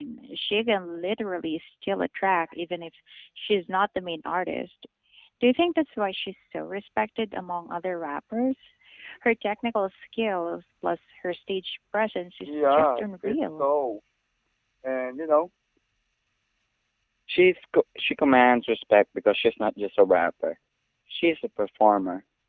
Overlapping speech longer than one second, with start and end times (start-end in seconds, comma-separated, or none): 12.5-13.7